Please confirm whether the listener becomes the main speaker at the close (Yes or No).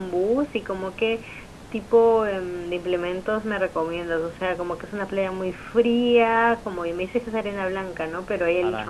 No